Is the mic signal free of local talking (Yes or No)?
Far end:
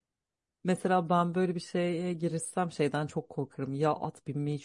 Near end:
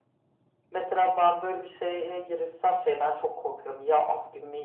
Yes